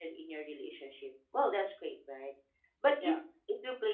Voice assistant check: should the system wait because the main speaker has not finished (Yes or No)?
Yes